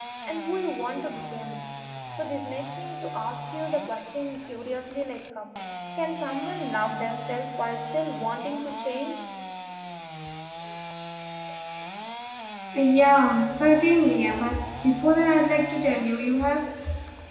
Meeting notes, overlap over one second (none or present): none